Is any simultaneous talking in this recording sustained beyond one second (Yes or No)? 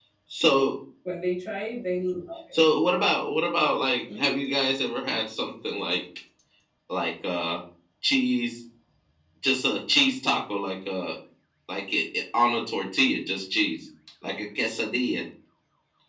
No